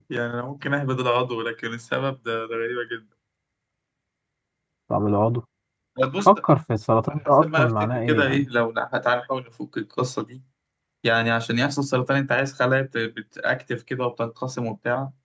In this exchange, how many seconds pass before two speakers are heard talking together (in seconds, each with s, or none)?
7.1 s